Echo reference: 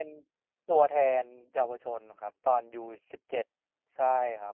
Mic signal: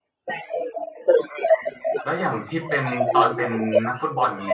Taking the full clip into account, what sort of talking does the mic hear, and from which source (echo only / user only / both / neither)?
both